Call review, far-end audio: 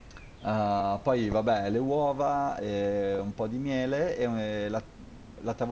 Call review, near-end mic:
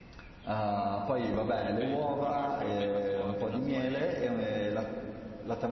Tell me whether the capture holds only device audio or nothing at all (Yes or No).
No